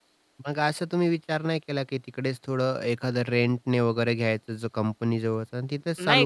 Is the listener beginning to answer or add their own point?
Yes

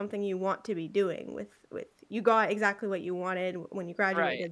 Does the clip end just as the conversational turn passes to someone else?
No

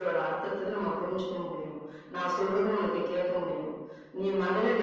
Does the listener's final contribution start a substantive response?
No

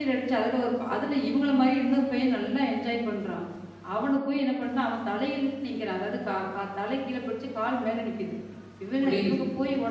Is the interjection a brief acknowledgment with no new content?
Yes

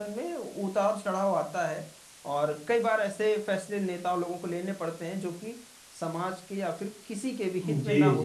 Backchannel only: No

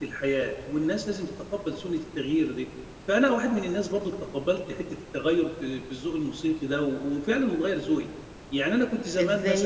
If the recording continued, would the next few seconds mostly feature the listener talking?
Yes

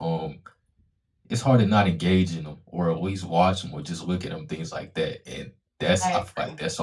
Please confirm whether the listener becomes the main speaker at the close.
No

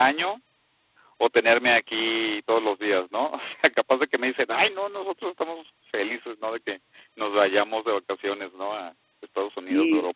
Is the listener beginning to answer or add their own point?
Yes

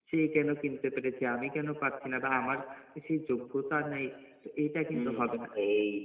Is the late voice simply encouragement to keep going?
No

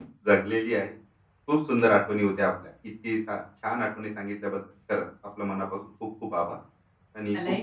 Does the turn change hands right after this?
Yes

